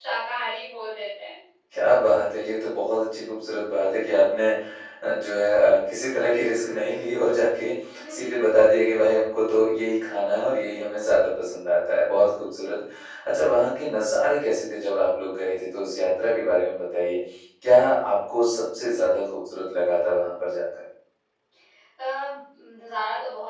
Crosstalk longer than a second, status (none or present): none